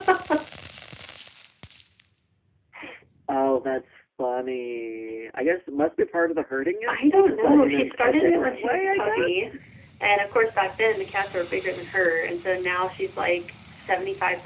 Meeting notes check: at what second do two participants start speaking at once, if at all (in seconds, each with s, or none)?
6.9 s